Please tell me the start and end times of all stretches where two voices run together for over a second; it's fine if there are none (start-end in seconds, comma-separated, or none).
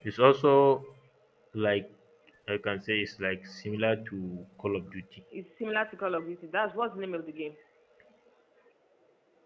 none